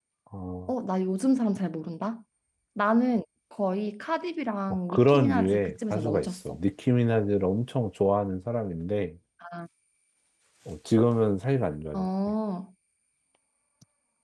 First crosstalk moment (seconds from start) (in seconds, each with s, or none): 4.9 s